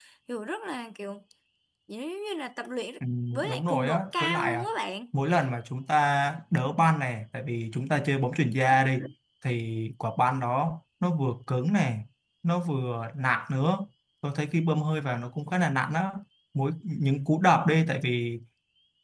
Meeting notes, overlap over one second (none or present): present